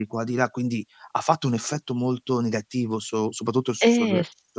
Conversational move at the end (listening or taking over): taking over